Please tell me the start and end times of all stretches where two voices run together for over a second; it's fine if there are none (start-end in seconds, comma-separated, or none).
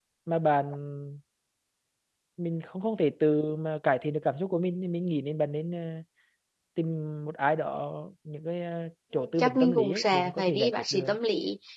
9.4-11.2